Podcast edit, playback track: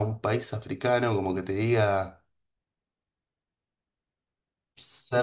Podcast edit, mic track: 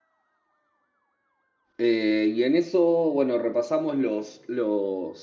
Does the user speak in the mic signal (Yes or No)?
Yes